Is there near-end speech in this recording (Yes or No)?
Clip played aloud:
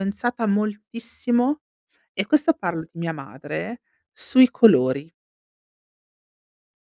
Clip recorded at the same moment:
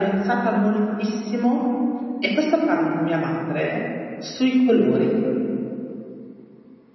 No